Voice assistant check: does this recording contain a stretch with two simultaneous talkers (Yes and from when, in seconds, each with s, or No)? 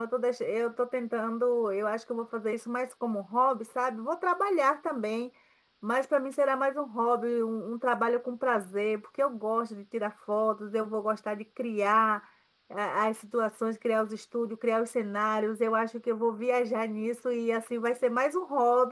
No